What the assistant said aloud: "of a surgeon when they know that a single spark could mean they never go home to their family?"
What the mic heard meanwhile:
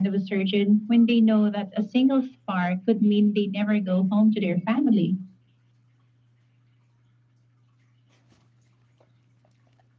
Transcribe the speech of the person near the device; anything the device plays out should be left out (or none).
none